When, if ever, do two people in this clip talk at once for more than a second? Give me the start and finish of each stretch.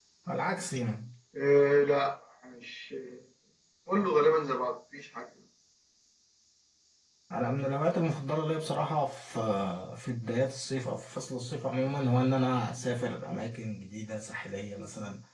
none

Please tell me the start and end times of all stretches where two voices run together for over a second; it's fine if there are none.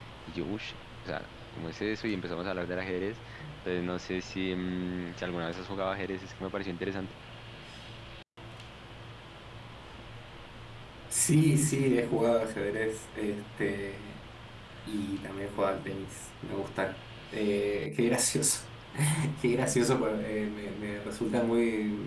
none

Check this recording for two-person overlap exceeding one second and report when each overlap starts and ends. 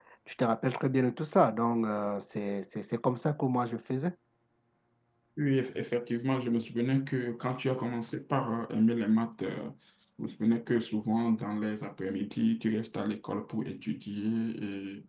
none

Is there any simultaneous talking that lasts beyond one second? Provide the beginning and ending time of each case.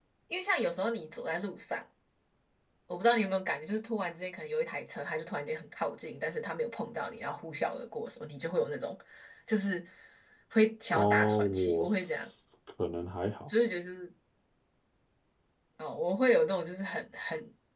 10.9-12.3

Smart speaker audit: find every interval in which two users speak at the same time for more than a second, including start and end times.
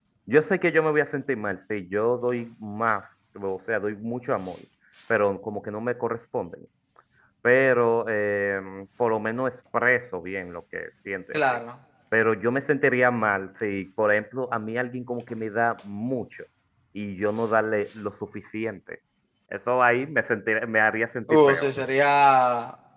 none

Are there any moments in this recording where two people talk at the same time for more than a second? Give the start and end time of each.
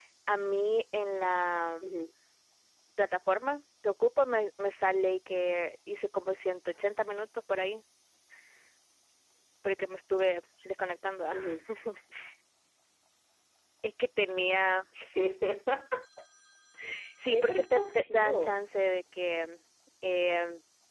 17.3-18.6

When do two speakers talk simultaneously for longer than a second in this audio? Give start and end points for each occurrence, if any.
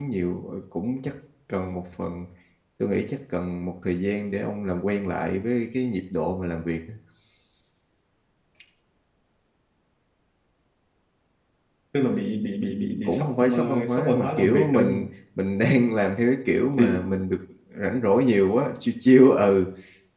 13.0-15.1

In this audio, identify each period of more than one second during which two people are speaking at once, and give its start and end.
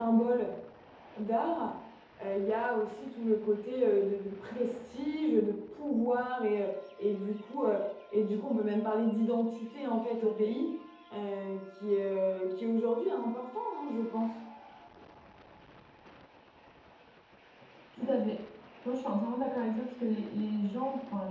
none

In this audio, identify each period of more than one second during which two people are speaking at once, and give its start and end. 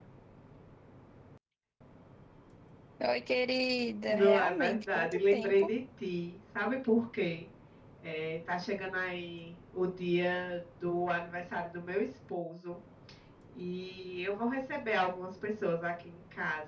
4.1-5.7

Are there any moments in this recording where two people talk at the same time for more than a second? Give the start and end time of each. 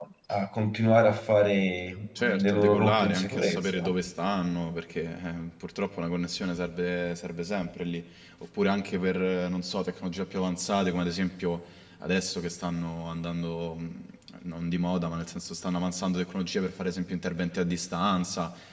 2.4-3.8

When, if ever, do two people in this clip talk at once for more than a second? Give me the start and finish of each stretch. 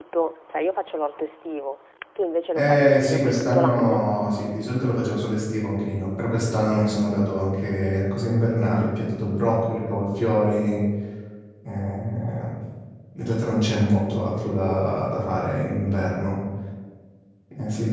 2.6-4.0

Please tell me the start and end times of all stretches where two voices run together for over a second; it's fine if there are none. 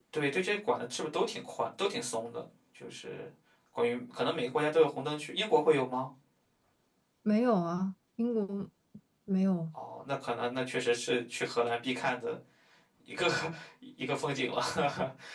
none

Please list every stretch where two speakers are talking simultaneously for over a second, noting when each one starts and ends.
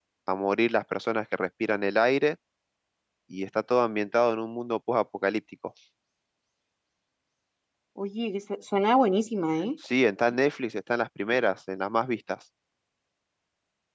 none

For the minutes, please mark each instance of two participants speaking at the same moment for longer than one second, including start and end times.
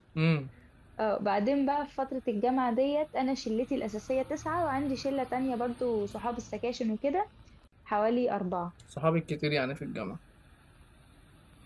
none

